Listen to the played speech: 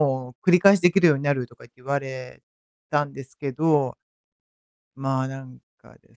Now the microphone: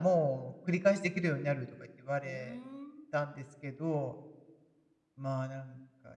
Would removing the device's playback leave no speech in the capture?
No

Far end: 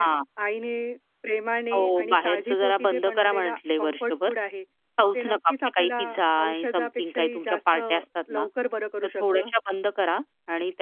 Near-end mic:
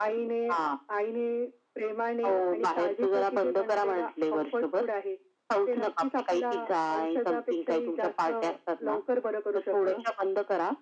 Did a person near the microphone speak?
No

